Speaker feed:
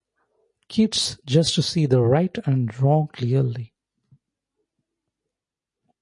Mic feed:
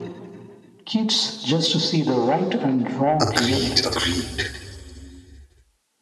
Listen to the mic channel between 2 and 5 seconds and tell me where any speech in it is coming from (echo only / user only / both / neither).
both